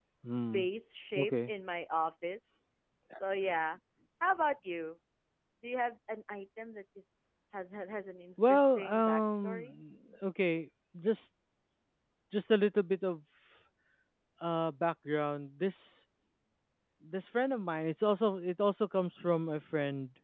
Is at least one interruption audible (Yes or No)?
Yes